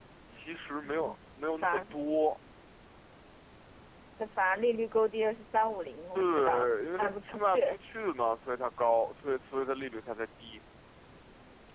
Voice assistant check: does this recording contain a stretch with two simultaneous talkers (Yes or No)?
Yes